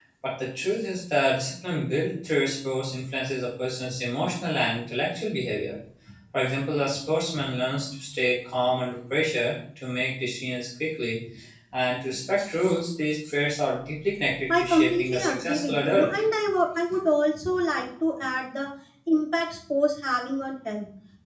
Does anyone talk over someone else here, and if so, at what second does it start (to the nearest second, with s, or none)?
14 s